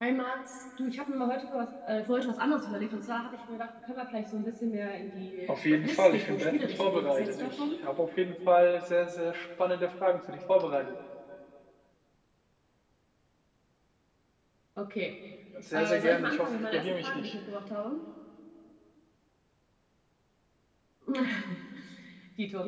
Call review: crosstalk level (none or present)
present